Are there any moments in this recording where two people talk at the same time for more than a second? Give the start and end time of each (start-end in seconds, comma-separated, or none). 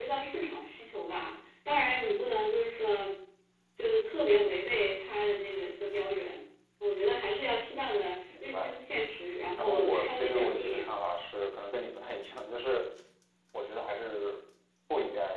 9.5-10.9